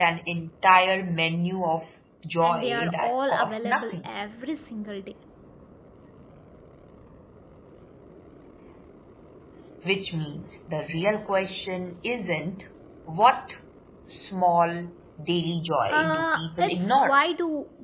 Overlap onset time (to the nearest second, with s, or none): 2 s